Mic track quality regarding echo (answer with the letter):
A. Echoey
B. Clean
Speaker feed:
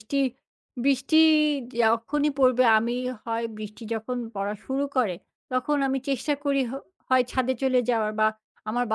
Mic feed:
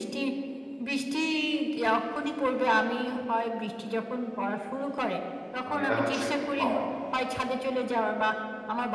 A